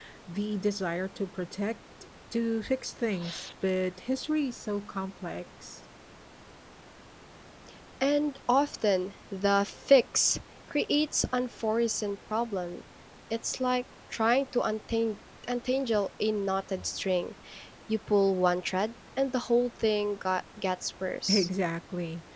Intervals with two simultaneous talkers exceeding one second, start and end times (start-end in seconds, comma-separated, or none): none